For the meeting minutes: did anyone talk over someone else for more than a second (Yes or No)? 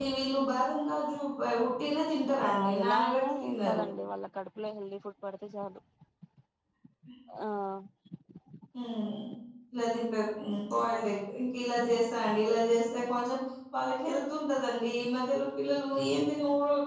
Yes